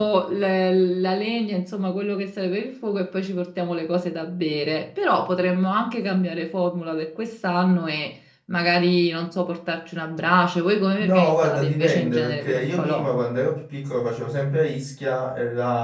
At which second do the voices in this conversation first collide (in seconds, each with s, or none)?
11.0 s